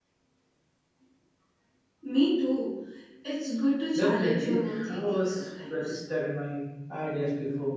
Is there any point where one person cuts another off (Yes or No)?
Yes